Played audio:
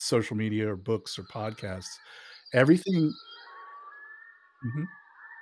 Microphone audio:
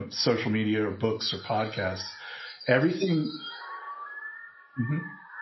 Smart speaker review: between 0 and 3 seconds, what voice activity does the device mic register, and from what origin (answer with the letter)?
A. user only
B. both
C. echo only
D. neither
C